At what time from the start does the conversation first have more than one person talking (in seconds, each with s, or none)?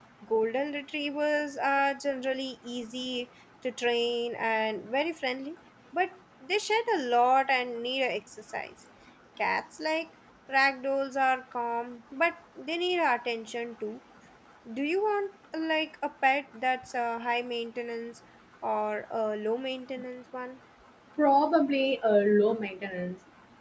none